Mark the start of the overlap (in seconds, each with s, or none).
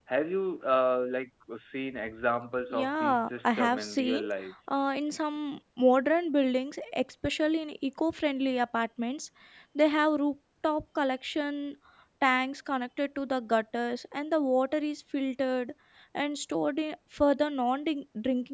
2.7 s